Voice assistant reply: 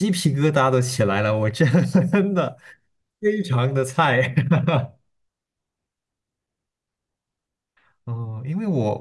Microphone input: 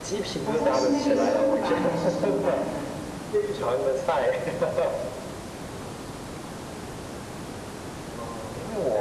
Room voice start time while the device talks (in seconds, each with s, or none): 0.4 s